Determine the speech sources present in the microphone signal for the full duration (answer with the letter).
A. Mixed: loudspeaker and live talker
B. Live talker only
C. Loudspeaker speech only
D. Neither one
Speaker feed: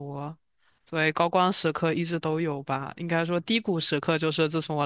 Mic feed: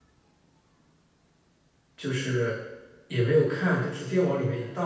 B